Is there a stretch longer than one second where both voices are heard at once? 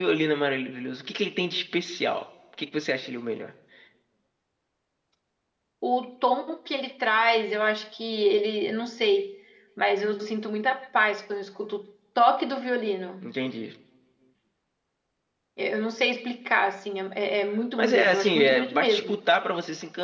Yes, from 17.8 s

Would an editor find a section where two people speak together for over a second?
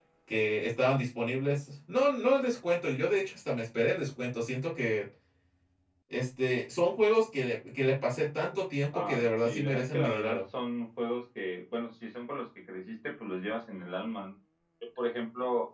Yes, from 8.9 s

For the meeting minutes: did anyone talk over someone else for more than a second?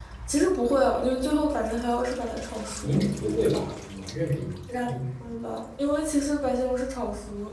No

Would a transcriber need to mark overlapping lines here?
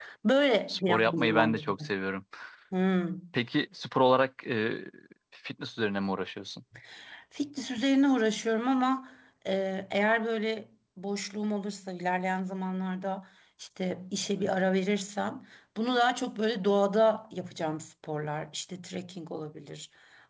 Yes, from 0.7 s

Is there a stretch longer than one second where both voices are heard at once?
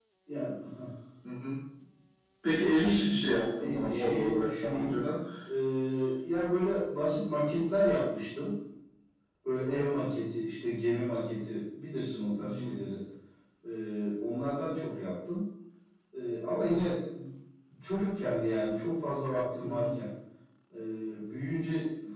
Yes, from 3.6 s

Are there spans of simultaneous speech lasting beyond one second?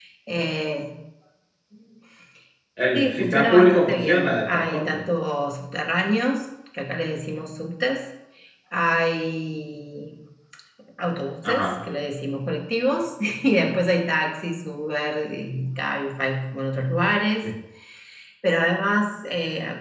Yes, from 2.9 s

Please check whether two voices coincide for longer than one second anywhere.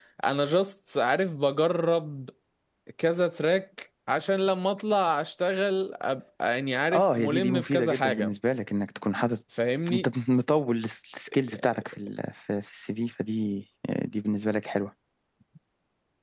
Yes, from 6.9 s

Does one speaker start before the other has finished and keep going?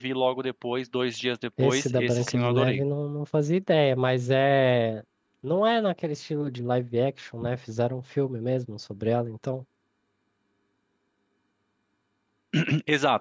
Yes, from 1.6 s

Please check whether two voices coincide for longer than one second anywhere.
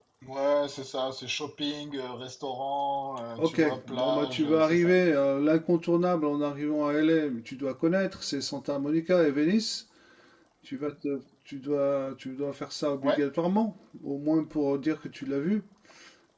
Yes, from 3.4 s

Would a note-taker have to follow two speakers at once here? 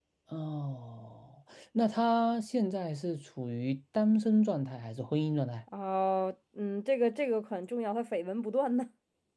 No

